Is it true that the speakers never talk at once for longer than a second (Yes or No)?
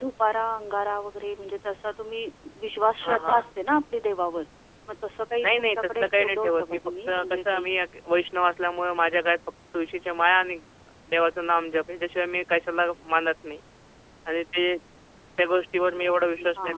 No